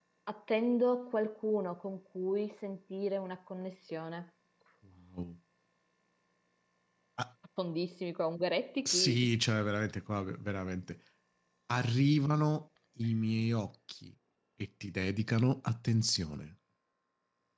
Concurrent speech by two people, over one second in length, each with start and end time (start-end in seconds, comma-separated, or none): none